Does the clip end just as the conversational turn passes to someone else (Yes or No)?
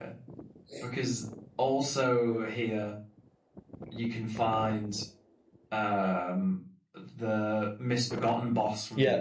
Yes